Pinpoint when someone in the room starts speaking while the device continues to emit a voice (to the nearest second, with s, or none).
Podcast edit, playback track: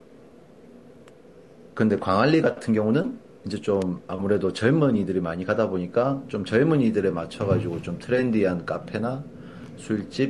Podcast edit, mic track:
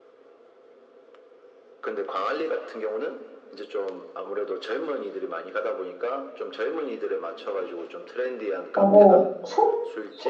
9 s